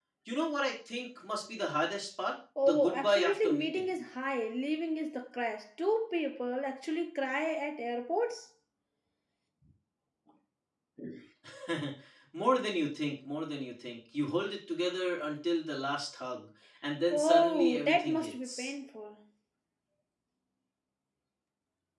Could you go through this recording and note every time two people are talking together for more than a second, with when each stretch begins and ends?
2.6-3.9, 17.1-18.7

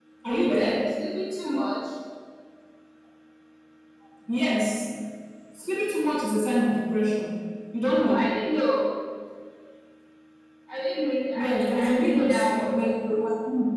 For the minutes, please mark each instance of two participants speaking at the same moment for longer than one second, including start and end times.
11.3-12.7

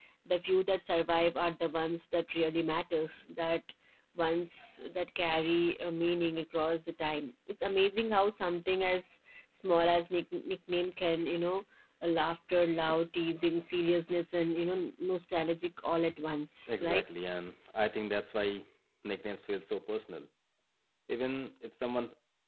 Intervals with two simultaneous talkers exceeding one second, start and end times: none

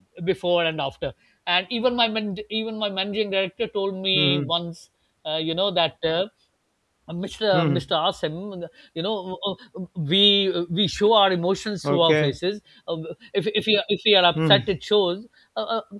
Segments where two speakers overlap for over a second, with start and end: none

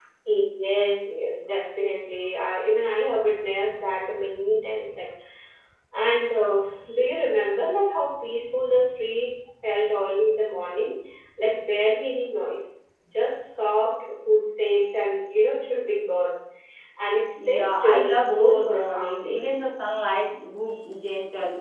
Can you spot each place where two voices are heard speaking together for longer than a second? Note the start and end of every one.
17.4-19.4

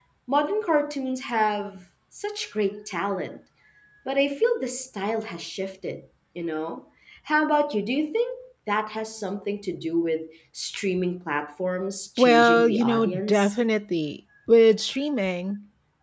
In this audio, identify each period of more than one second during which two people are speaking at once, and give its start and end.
12.2-13.5

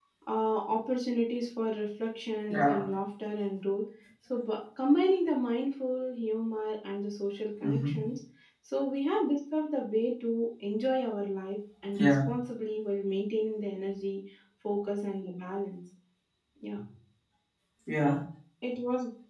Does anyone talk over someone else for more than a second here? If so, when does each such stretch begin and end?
none

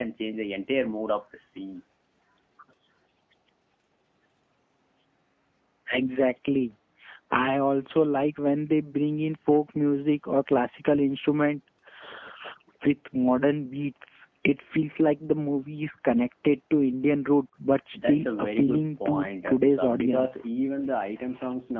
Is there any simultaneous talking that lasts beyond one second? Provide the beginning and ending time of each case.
17.9-20.3

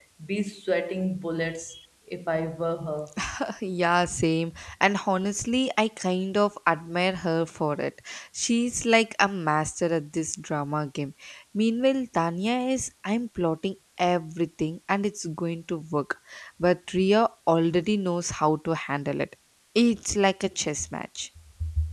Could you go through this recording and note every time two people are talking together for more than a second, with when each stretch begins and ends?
none

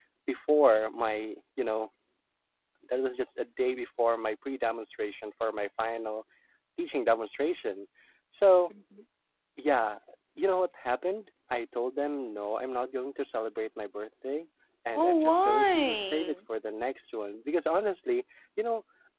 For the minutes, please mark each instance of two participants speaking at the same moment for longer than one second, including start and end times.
14.9-16.4

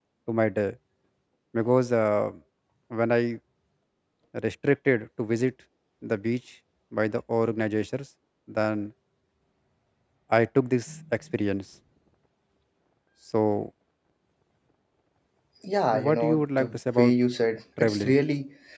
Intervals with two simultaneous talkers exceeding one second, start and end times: 15.9-17.1

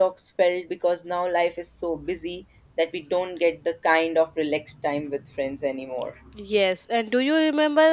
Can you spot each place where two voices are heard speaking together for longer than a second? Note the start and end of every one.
none

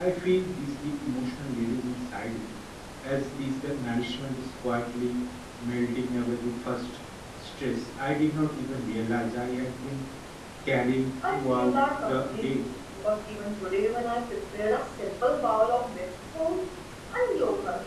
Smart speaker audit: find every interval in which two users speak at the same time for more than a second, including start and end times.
11.3-12.6

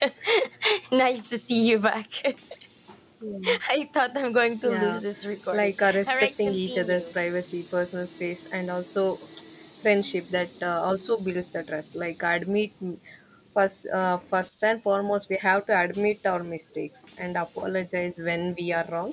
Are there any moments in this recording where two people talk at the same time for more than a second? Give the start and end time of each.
5.5-7.0

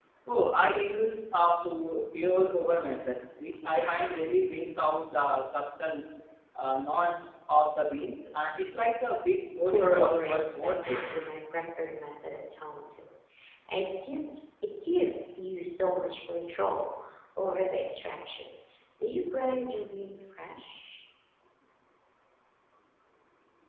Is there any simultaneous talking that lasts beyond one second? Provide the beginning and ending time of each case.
9.6-11.0

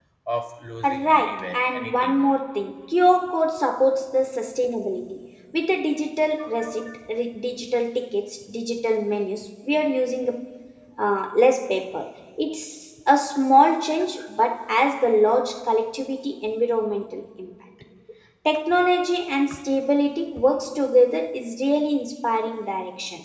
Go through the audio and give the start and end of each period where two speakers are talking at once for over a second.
0.8-2.2

